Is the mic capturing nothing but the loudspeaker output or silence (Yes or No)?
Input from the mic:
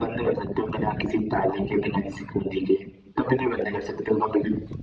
Yes